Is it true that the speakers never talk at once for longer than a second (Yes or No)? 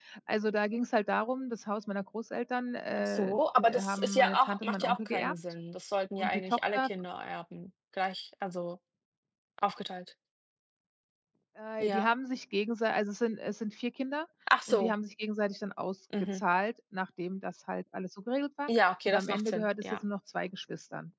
No